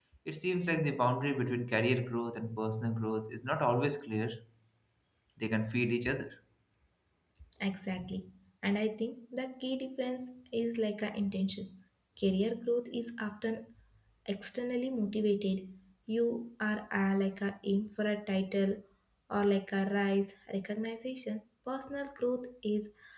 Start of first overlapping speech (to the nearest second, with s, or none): none